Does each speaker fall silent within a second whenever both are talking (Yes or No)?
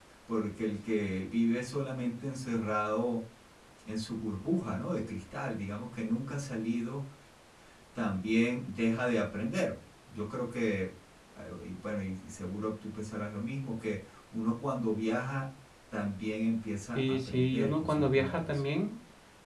No